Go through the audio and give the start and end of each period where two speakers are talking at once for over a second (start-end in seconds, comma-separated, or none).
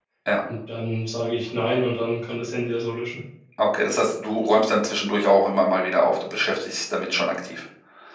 none